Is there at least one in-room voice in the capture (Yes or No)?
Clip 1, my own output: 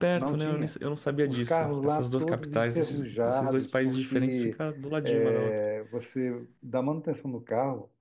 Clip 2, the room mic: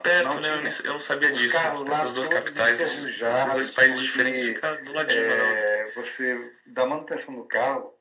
No